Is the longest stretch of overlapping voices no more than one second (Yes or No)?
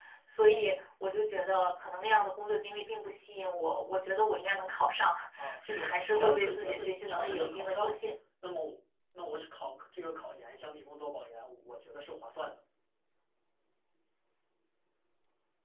No